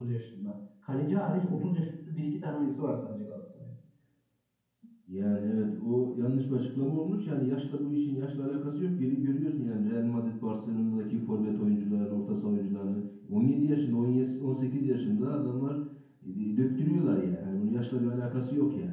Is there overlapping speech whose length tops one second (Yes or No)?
No